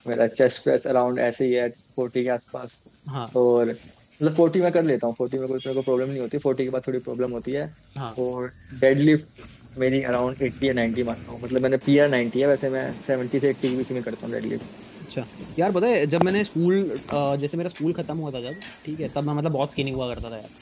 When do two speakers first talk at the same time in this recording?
none

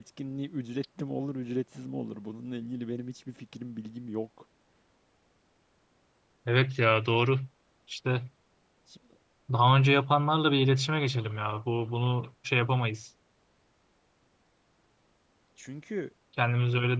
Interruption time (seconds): none

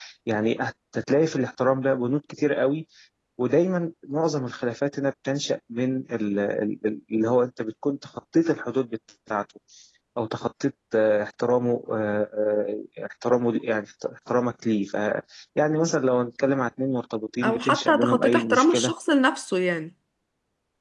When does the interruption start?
17.4 s

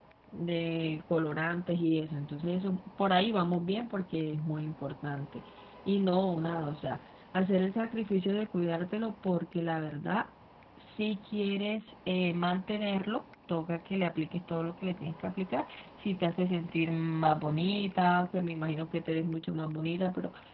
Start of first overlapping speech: none

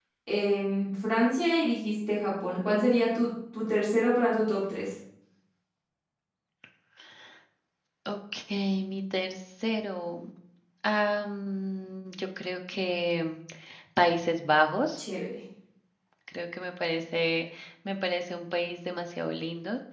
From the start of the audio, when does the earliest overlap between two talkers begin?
none

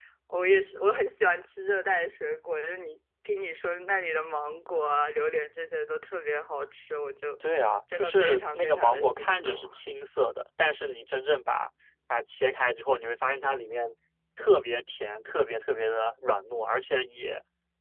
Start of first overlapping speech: 7.9 s

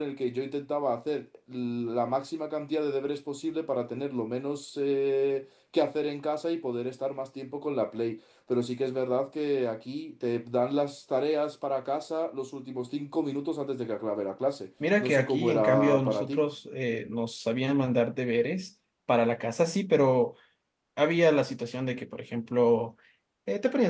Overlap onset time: 14.8 s

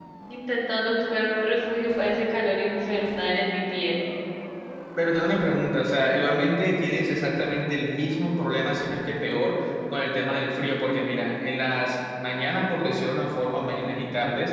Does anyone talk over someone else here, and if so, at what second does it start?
none

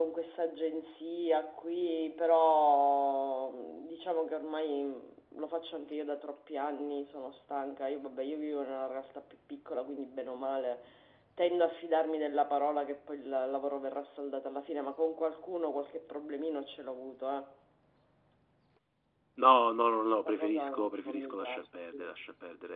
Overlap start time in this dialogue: 20.2 s

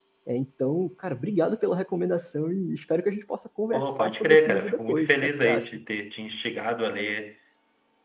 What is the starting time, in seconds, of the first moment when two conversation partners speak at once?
3.7 s

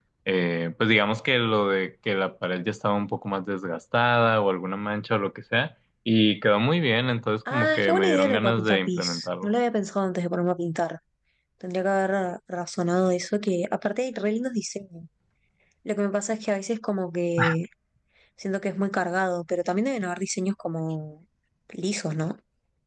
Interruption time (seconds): 7.5 s

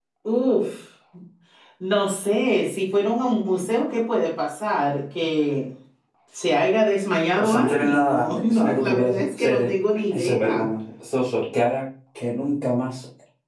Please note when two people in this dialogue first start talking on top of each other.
7.4 s

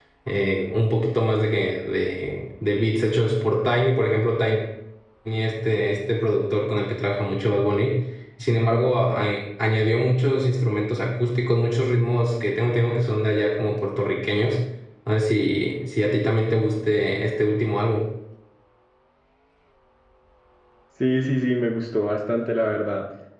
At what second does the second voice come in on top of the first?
none

